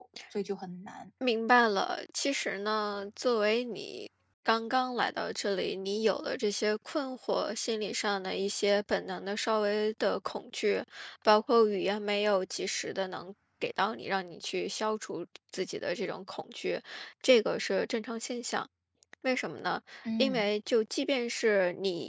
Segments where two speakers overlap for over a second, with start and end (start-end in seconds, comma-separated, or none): none